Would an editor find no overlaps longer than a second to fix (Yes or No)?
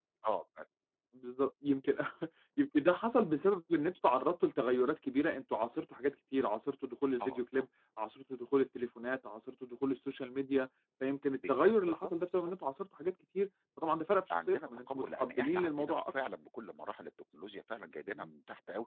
No